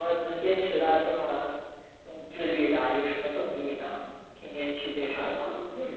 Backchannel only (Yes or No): No